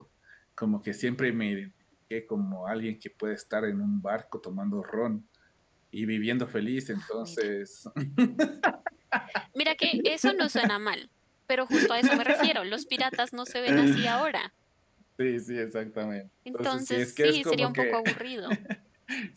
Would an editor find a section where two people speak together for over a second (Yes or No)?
Yes